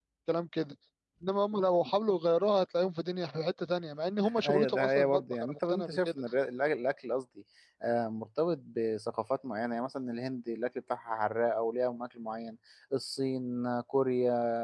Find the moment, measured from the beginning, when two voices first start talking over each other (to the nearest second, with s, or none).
4 s